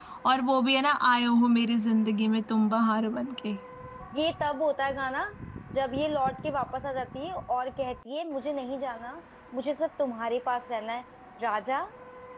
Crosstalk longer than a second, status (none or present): none